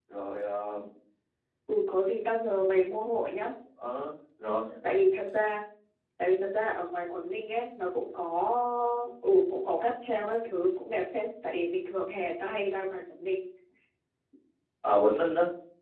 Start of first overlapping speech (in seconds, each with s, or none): none